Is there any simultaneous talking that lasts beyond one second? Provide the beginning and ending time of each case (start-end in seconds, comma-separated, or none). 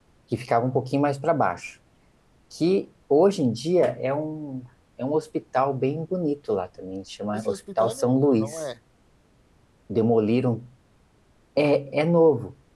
7.3-8.6